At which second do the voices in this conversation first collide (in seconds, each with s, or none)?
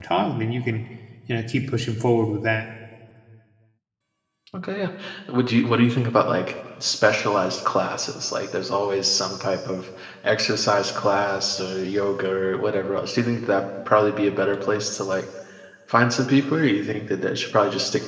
none